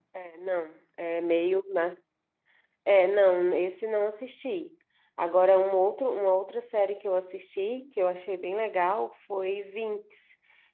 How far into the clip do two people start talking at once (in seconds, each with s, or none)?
none